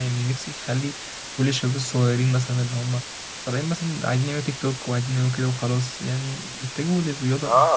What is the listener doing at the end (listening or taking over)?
taking over